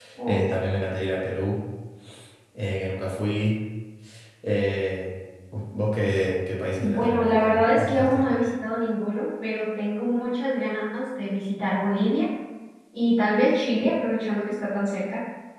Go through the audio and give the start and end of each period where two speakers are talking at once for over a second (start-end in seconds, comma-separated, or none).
6.8-8.2